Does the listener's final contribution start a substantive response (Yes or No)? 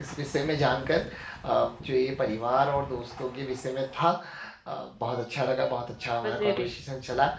No